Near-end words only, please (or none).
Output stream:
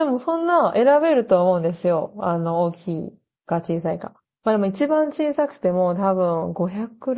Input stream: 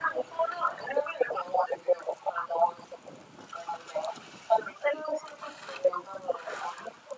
none